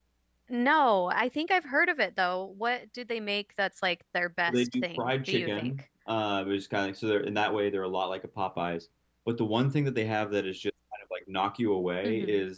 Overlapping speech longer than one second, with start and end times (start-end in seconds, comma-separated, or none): 4.5-5.7